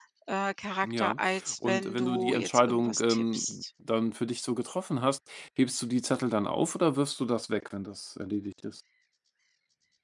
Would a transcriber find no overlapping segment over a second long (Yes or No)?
No